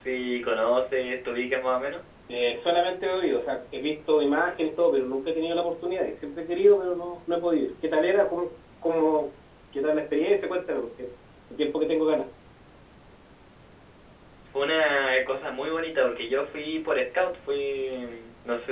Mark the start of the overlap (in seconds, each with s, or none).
none